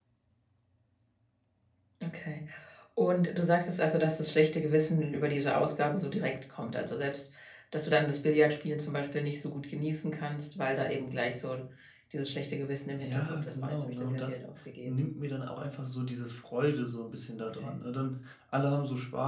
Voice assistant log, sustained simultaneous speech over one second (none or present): present